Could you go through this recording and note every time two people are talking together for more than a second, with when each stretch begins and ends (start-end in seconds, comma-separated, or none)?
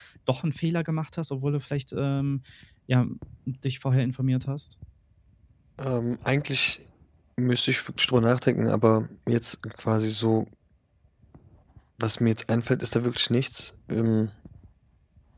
none